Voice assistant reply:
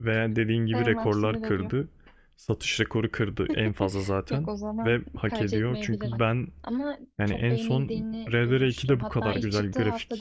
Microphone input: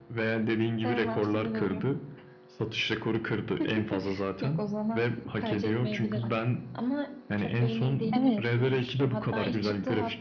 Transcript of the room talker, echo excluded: Evet.

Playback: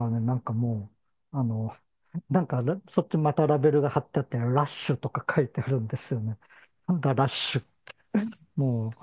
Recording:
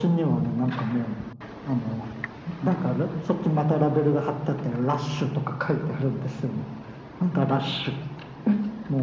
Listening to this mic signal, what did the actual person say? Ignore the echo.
none

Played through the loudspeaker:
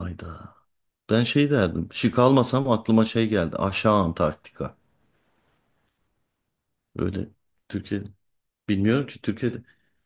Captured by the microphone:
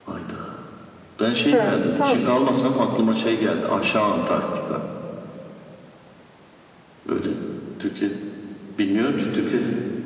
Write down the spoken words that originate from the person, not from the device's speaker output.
ha tamam.

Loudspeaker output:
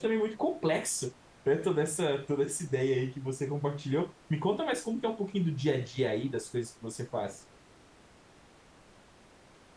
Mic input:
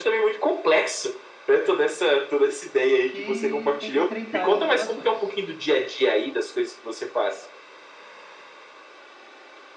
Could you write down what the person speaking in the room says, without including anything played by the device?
que tenta estreitar essas relações.

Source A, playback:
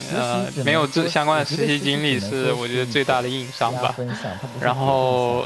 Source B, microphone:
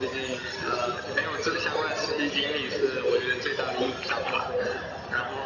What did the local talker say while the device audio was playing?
none

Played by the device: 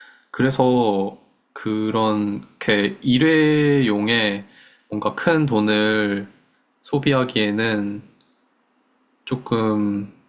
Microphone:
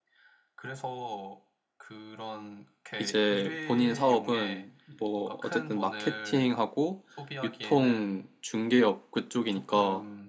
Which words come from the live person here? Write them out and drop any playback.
이제 본인 사업은 뭐 어쨌든 마케팅하고 유통 중개업 그쪽이니까

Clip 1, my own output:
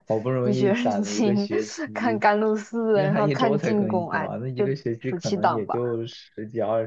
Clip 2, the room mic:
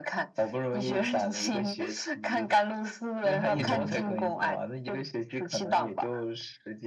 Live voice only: 嗯

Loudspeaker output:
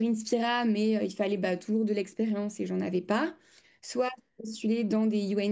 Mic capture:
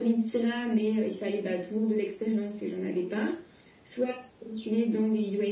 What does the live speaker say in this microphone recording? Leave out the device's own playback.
none

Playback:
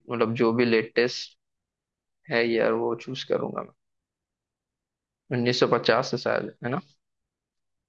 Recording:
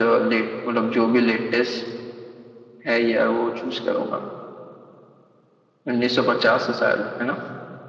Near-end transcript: none

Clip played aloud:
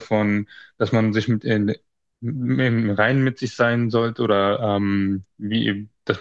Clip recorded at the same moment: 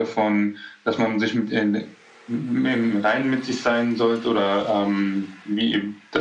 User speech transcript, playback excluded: none

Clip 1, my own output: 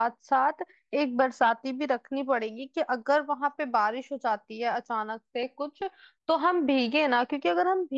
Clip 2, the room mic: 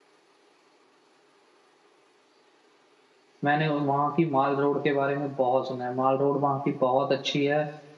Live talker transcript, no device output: मैंने वहाँ की माल रोड के बारे में बहुत सुना है माल रोड वहाँ की बहुत अच्छी है

